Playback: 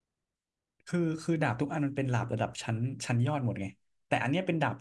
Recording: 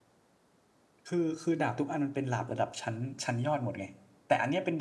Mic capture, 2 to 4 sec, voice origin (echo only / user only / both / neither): echo only